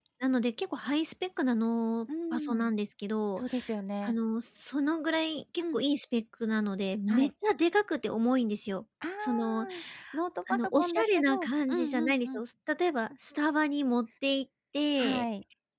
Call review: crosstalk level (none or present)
present